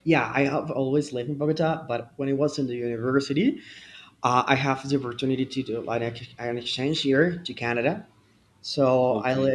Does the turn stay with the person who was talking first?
Yes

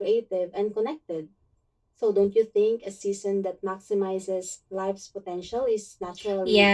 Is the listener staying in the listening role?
No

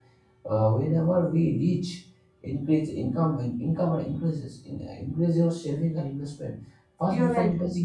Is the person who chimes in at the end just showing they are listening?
Yes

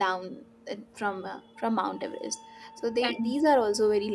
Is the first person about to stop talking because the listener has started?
No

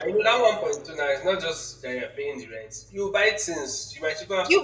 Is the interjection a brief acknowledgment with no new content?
No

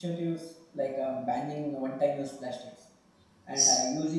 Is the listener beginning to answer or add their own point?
No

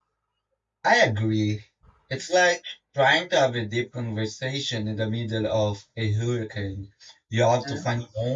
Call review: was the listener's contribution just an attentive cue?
Yes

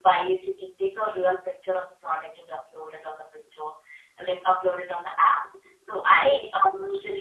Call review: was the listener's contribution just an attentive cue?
Yes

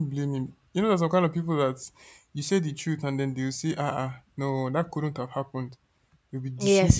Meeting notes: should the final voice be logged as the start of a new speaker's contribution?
Yes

